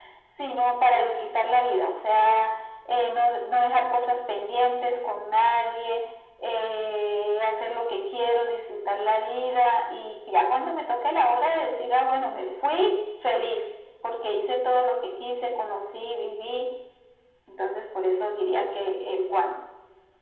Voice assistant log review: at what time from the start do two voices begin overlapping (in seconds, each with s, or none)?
none